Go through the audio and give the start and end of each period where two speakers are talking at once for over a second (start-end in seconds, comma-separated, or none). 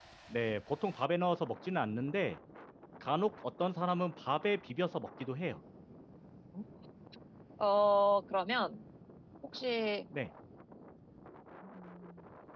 none